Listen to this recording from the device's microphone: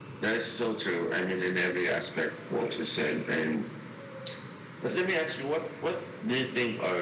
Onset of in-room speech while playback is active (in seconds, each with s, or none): none